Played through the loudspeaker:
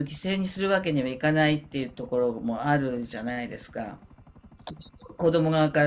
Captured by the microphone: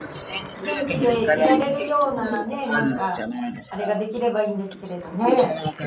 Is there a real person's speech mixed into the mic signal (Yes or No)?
Yes